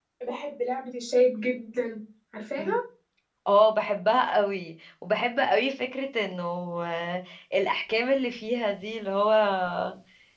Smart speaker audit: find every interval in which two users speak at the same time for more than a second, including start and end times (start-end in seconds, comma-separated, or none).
none